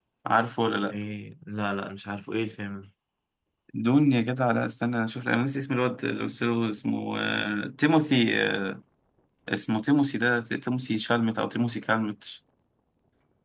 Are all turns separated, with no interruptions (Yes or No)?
Yes